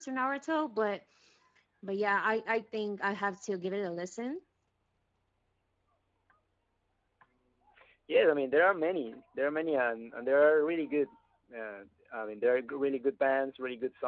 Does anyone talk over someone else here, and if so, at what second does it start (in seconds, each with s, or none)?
none